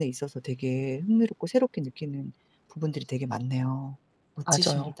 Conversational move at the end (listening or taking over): taking over